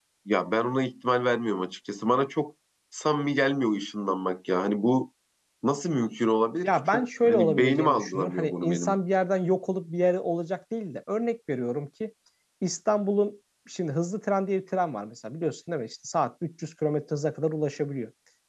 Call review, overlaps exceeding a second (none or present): present